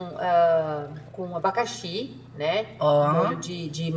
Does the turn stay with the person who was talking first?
Yes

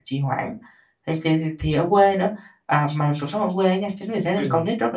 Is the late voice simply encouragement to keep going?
Yes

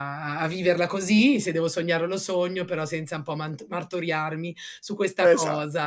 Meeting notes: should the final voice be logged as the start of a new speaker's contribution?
No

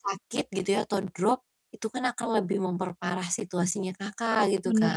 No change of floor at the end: No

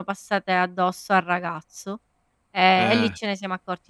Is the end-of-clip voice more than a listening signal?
No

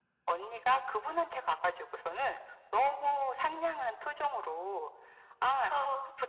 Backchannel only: Yes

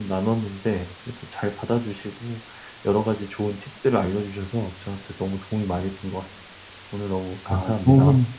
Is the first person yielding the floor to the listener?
Yes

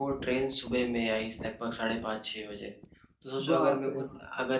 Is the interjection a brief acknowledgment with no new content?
Yes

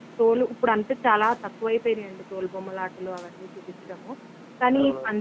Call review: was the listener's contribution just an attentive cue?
Yes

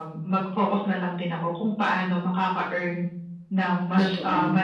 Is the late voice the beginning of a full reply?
No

